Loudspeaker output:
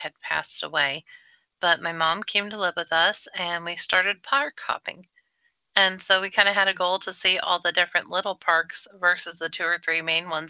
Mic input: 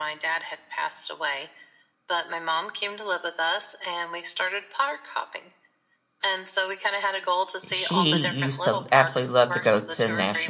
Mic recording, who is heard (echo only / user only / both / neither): both